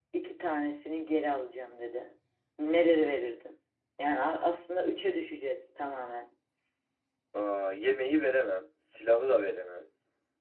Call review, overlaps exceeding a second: none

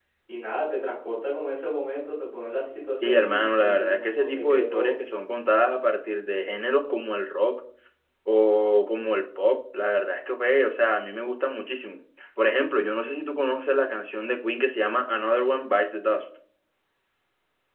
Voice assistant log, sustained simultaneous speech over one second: present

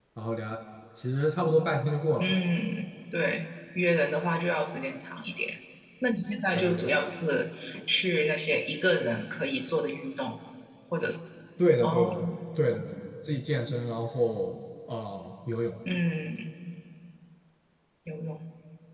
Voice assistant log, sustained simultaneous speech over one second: none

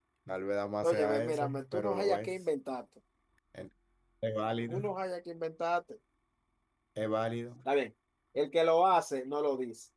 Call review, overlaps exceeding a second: present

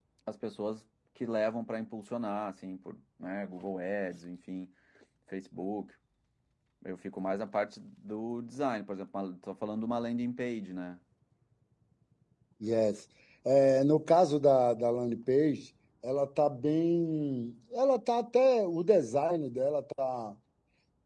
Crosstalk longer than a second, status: none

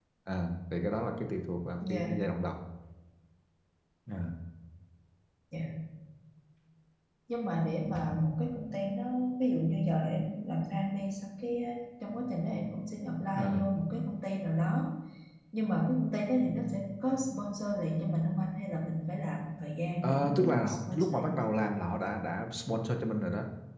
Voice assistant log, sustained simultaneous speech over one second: present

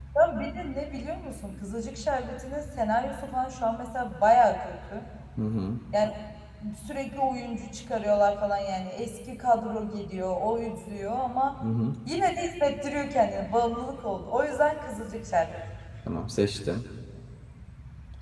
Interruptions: none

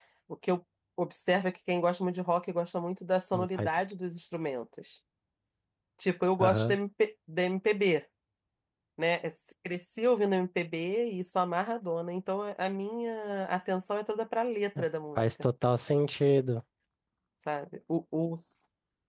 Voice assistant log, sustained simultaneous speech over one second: none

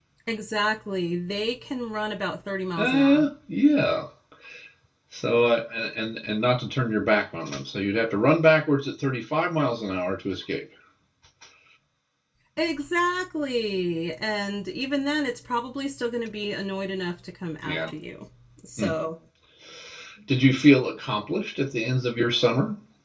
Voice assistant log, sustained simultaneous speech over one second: none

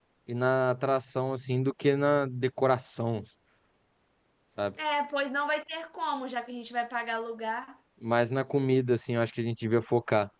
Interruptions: none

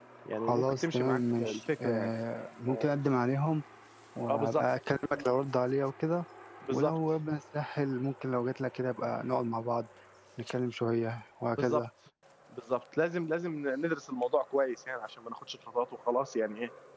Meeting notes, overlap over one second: present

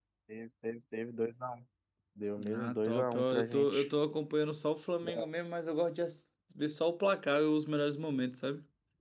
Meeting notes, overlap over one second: present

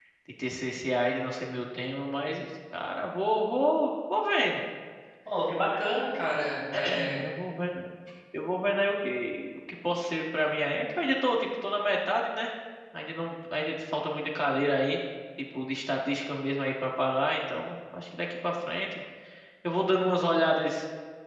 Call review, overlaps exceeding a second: none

